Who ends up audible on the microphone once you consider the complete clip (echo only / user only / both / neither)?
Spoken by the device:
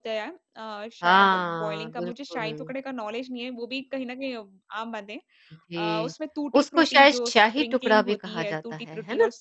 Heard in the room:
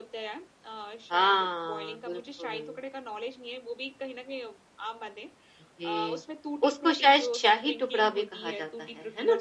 echo only